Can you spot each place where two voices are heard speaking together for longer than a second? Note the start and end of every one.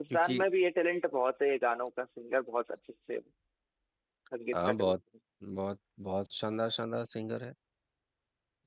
none

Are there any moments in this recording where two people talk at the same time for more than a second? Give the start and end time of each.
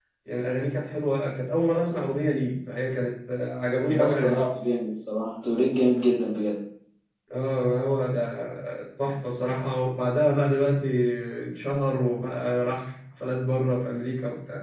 none

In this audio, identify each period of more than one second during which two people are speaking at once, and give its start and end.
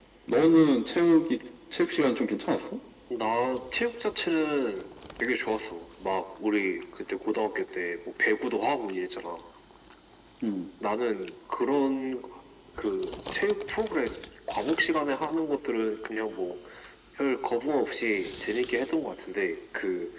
none

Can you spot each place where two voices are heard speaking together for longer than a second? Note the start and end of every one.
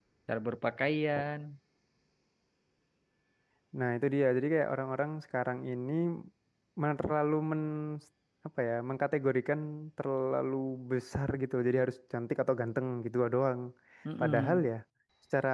none

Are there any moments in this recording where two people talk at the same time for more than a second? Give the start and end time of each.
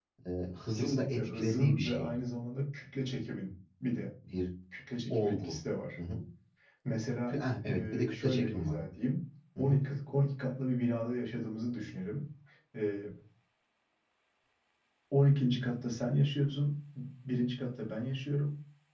0.8-2.1, 7.3-8.8

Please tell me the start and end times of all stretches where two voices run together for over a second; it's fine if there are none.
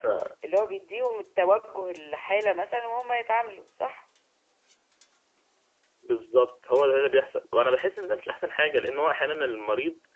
none

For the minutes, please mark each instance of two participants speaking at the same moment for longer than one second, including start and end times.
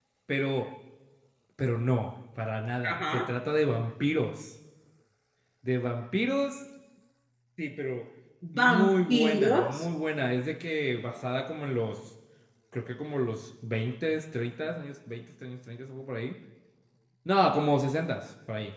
8.6-9.8

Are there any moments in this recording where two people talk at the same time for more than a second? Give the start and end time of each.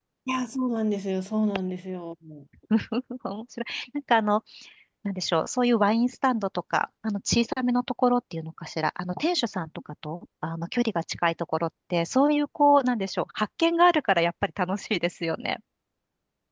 none

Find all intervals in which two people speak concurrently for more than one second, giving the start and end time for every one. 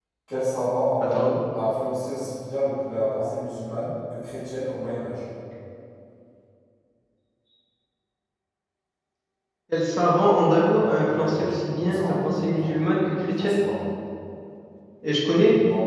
10.8-12.7

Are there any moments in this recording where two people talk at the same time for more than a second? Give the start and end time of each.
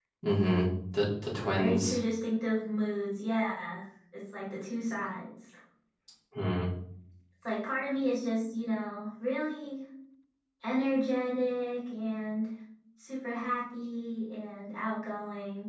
none

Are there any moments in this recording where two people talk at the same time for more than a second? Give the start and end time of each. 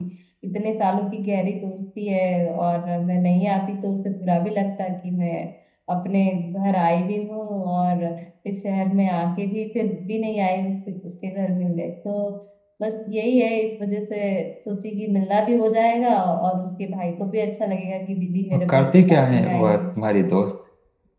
18.5-19.8

